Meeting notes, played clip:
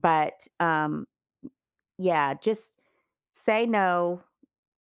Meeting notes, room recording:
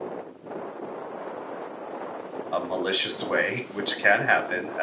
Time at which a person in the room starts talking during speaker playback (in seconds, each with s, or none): 2.5 s